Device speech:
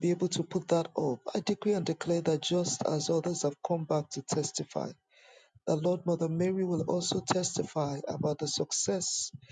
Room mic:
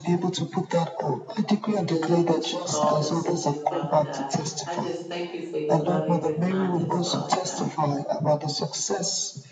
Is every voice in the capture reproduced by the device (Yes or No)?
No